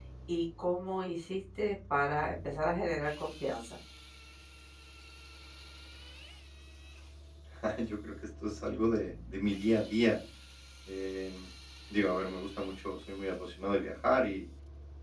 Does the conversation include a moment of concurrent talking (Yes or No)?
No